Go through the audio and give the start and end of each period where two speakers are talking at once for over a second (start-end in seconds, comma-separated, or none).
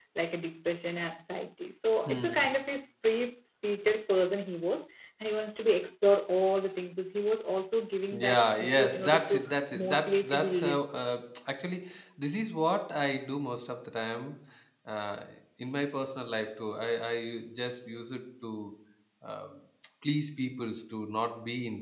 8.1-10.8